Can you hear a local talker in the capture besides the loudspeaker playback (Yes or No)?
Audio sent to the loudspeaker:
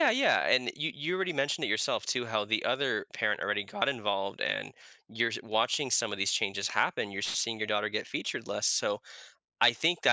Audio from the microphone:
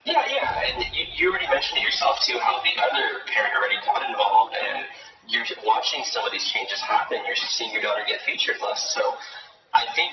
No